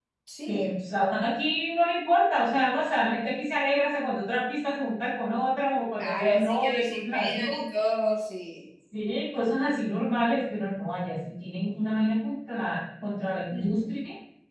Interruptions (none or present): present